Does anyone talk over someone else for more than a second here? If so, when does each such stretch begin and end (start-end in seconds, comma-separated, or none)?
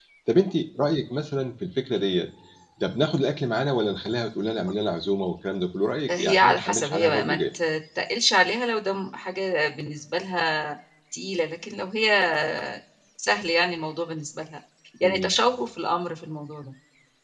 6.2-7.4